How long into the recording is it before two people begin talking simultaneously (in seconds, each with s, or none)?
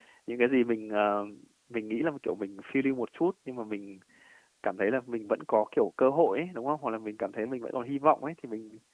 none